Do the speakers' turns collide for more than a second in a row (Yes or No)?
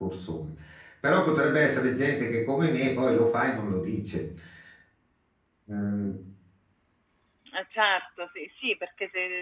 No